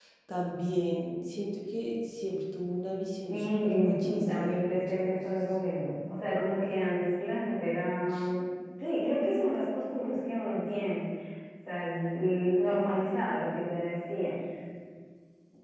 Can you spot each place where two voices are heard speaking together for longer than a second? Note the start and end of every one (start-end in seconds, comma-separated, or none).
3.3-5.2